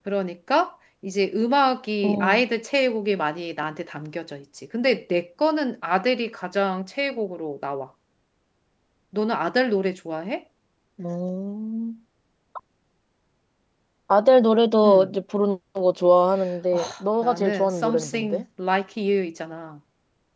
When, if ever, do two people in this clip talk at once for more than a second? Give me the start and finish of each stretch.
17.2-18.4

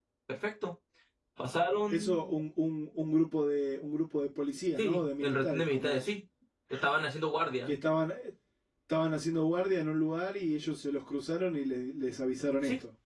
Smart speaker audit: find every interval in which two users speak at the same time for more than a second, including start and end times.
4.8-6.1

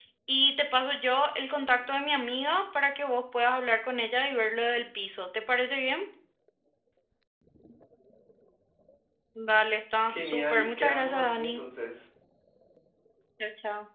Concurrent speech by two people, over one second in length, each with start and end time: 10.1-11.6

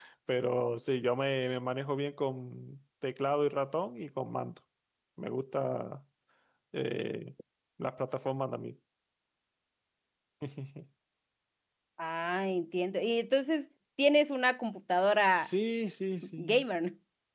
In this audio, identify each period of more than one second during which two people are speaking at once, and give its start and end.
none

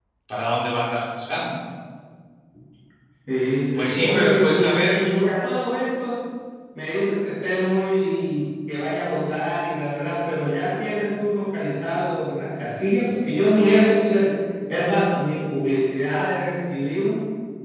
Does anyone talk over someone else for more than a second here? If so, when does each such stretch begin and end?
3.7-5.0

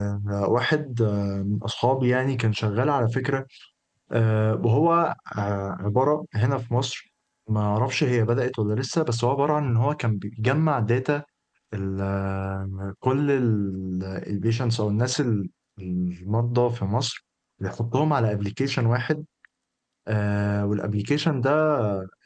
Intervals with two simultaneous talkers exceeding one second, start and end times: none

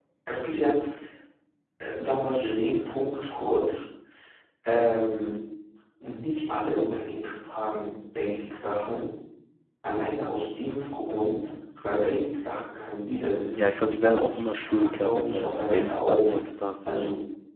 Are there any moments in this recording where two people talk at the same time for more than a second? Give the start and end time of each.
13.5-16.3

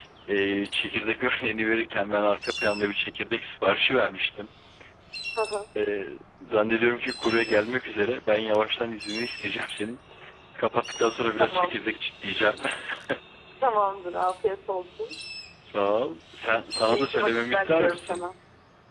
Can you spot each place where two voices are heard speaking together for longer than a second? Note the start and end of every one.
16.9-18.2

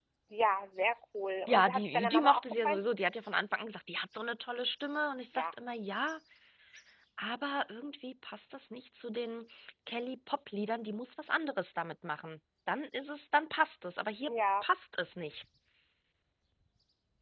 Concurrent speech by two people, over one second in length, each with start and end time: 1.5-2.8

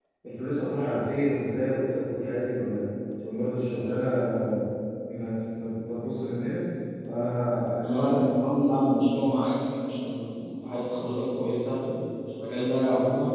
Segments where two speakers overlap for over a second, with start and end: none

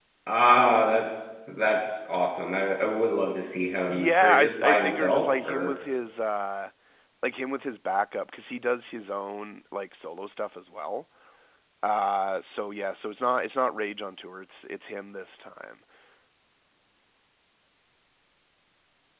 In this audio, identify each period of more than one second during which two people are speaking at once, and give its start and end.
3.9-5.7

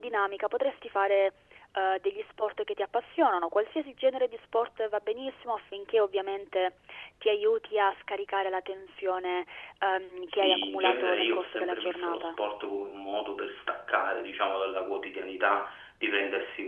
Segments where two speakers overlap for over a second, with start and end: 10.3-12.3

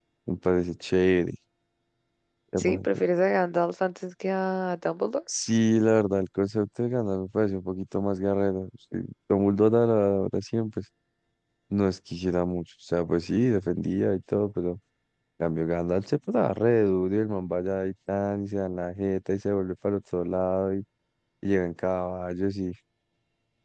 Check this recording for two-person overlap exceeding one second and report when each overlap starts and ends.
none

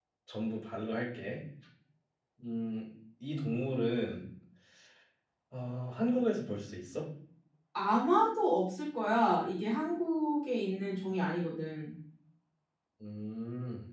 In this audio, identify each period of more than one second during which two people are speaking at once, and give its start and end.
none

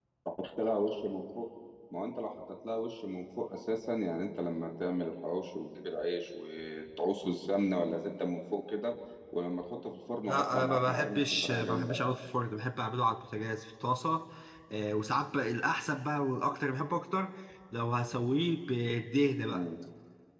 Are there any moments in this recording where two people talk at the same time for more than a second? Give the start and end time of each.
10.3-12.1

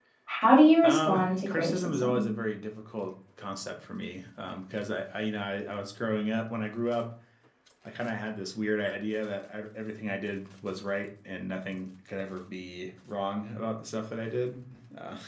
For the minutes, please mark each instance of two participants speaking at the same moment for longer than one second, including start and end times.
0.8-2.2

